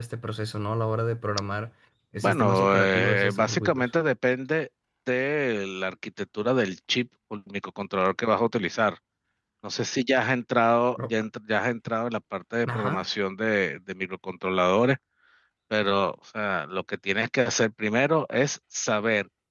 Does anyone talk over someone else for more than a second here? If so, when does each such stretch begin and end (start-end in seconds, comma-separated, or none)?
2.2-3.9